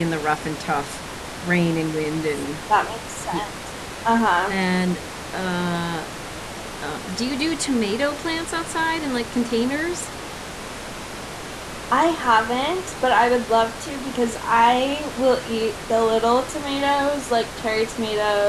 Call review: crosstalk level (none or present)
none